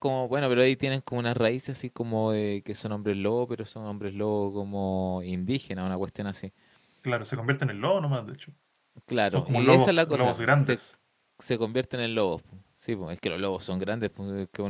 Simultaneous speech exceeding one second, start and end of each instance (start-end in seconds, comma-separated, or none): 9.3-10.8